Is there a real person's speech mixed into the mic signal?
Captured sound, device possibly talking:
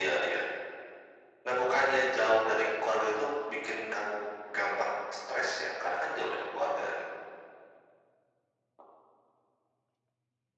No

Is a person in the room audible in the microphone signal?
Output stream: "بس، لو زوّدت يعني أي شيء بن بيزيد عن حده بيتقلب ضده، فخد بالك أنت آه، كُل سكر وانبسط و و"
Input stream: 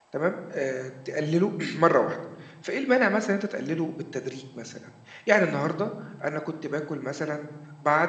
Yes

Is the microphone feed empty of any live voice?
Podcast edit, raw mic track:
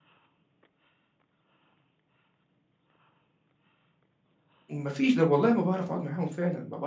No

